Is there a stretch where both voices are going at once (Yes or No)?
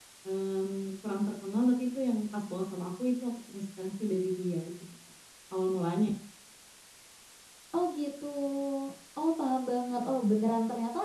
No